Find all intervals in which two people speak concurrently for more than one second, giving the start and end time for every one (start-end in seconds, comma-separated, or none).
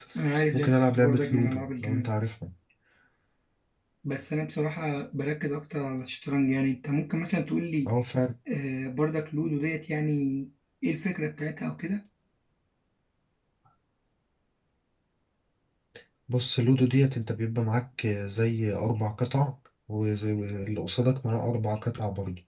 0.5-2.1